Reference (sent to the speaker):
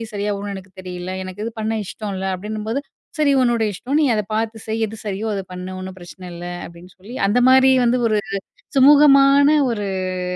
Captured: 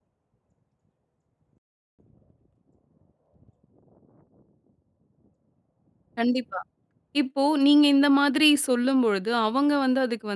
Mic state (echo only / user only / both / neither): user only